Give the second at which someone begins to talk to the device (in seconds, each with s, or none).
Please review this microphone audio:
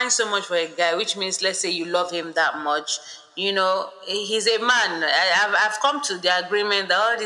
none